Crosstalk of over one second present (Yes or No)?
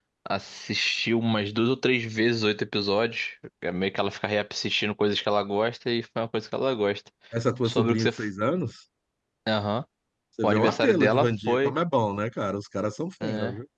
Yes